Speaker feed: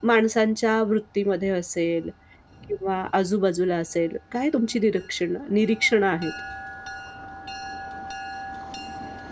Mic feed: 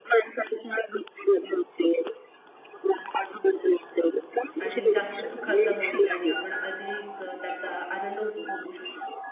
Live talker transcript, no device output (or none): आणि जास्त सुखाचा होईल आणि आपण अधिक अ, त्याचा आनंद उपभोगू शकू.